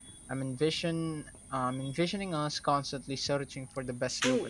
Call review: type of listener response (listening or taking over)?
taking over